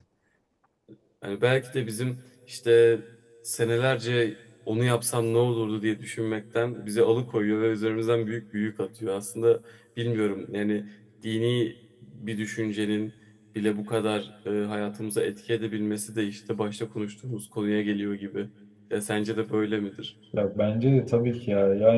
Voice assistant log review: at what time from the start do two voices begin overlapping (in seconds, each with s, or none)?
none